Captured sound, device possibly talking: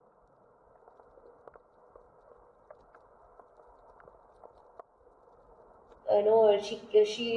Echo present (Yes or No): No